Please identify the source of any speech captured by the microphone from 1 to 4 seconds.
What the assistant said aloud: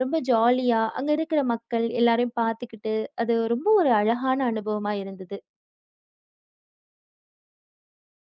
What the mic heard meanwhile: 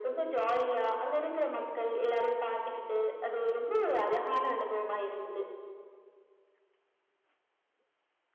echo only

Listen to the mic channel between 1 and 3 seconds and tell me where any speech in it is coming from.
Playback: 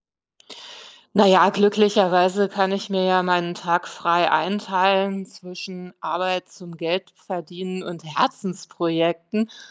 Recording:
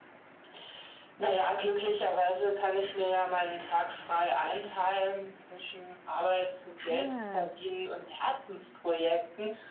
echo only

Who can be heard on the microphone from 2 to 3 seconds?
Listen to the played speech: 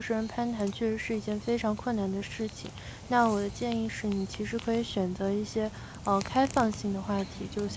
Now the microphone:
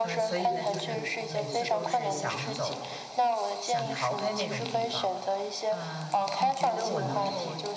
both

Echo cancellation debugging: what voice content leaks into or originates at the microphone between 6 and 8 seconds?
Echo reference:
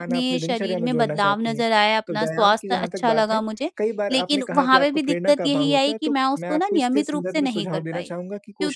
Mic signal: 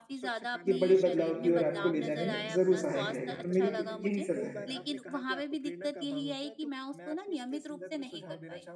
echo only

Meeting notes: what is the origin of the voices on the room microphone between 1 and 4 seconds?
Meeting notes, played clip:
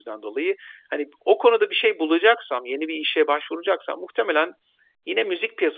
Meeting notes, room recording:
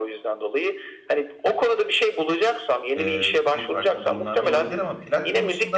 both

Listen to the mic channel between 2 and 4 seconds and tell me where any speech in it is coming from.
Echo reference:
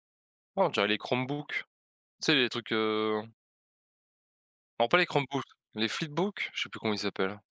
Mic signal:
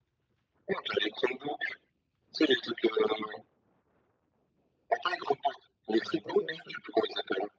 echo only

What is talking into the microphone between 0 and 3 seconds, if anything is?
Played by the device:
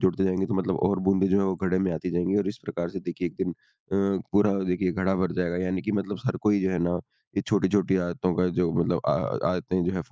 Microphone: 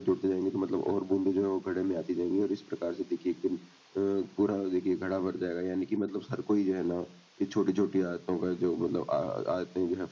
echo only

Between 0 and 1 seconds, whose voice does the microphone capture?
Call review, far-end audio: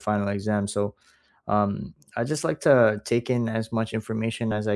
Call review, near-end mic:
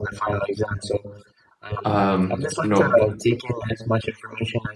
echo only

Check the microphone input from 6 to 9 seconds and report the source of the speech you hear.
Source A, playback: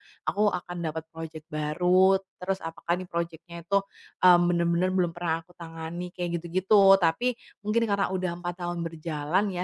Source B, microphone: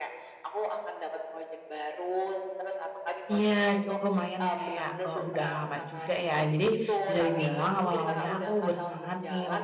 both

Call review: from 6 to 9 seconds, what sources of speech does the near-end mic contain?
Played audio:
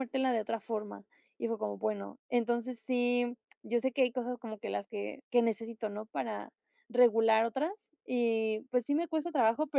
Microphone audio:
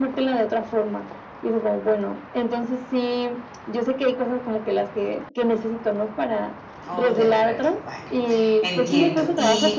both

